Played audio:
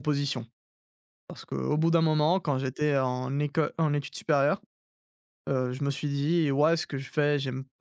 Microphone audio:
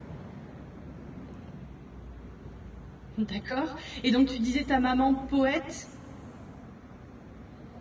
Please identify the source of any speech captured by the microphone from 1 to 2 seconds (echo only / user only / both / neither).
neither